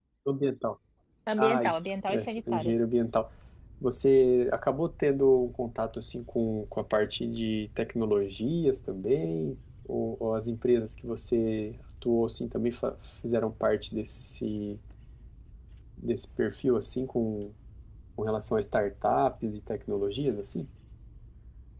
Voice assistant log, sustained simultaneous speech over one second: present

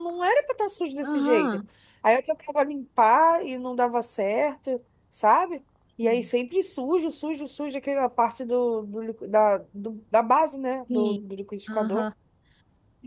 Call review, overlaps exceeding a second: none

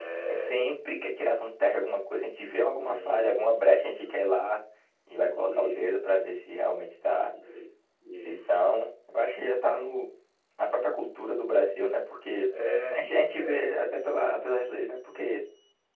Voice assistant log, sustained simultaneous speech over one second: present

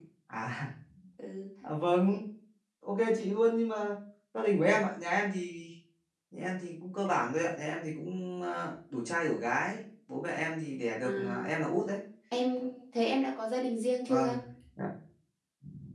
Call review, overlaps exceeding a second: none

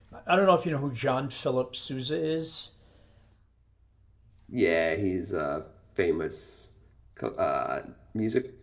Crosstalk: none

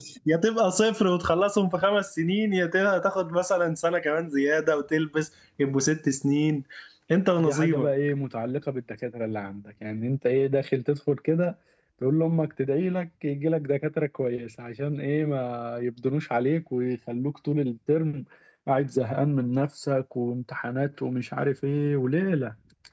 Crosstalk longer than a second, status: none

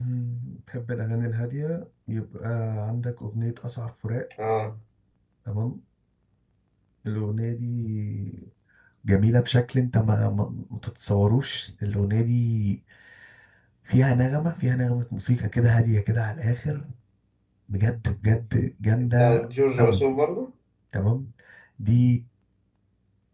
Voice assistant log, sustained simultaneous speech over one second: none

